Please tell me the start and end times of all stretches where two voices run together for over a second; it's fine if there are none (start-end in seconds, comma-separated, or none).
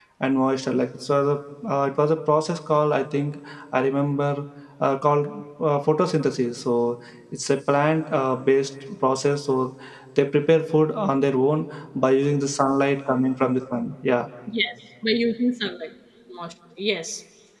none